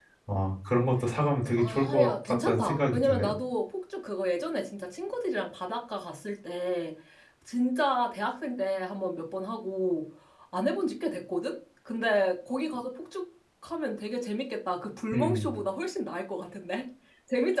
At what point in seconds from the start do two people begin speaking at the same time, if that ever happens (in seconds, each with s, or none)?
1.6 s